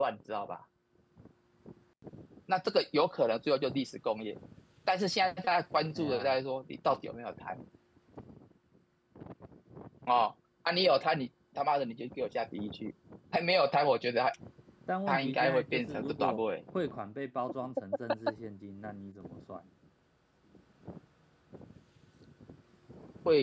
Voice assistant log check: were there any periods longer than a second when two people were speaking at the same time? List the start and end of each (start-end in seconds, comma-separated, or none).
15.1-16.4